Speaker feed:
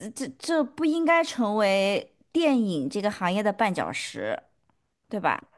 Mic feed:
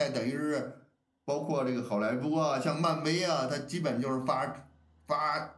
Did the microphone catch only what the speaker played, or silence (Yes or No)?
No